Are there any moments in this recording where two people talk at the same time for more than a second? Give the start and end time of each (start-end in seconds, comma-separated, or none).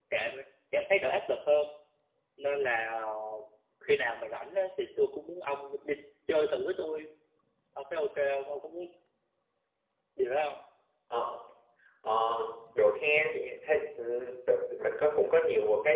none